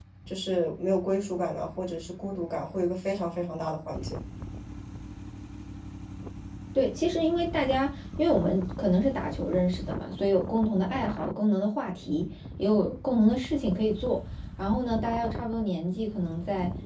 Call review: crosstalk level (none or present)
none